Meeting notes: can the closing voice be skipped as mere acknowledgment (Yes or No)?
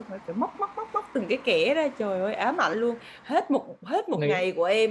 Yes